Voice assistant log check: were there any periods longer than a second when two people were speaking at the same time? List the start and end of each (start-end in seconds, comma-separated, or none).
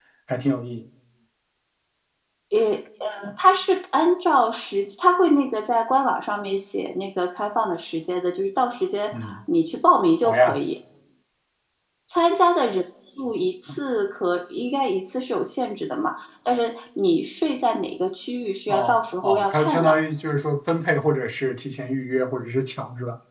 18.7-19.9